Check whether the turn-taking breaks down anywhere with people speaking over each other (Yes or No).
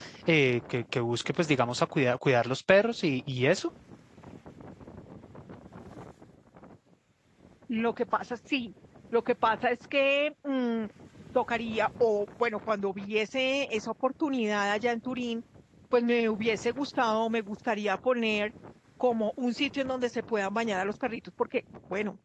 No